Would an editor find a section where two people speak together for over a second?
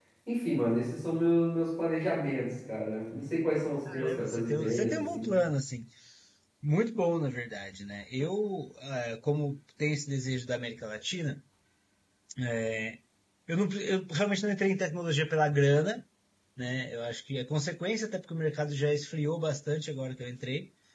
Yes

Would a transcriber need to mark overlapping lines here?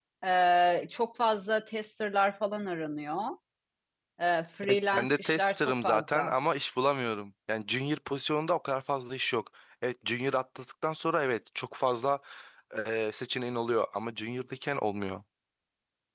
Yes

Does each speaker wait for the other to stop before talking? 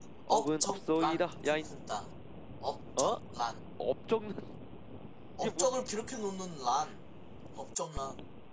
No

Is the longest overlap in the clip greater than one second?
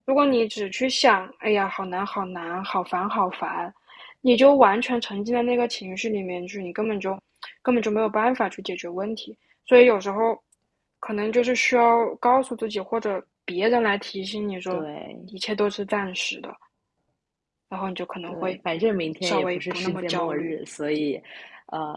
Yes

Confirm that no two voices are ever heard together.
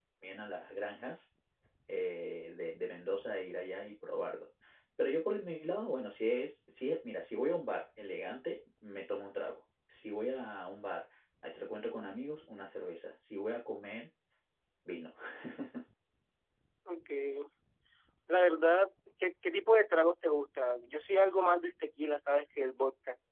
Yes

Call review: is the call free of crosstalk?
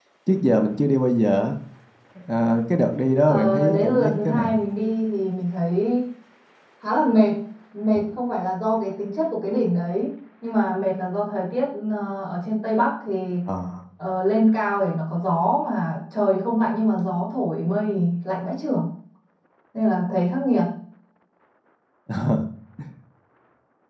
No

